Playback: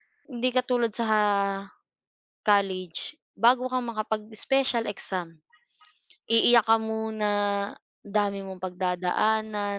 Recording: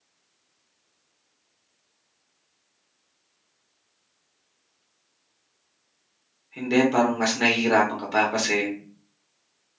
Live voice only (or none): hindi, parang mas nahihirapan ka pa kasi